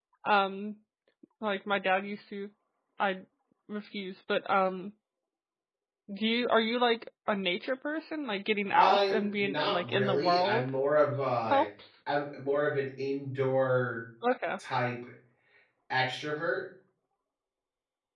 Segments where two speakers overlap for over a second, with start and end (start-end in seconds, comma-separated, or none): 8.7-10.7